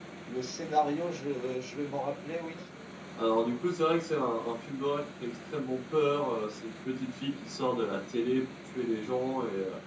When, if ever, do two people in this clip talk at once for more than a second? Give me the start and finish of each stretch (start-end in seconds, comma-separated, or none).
none